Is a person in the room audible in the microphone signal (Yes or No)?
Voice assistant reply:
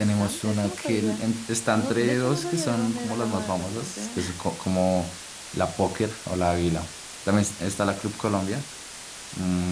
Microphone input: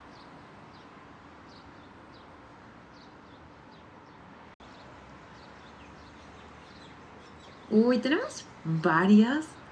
Yes